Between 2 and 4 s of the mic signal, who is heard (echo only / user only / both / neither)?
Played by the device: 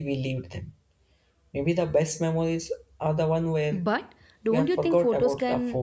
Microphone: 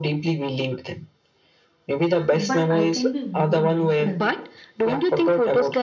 both